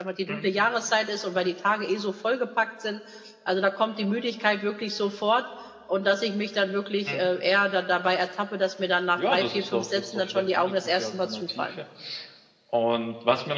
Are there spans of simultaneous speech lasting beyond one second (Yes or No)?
Yes